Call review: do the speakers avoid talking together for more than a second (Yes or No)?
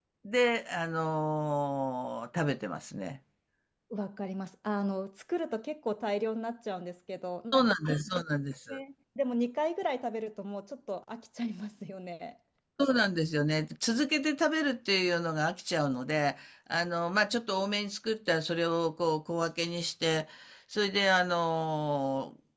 Yes